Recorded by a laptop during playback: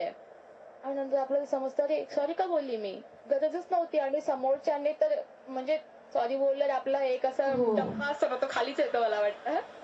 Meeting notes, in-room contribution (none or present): present